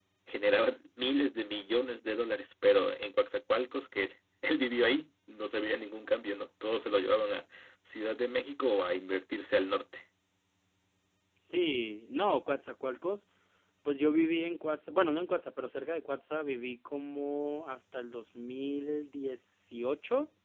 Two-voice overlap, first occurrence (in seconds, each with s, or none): none